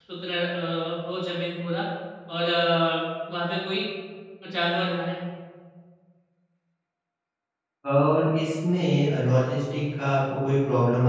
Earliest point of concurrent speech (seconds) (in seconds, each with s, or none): none